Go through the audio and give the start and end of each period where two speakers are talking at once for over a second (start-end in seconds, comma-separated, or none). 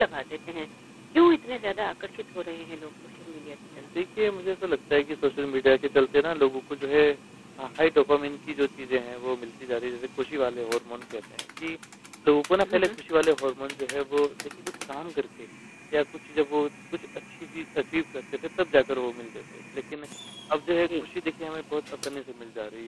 none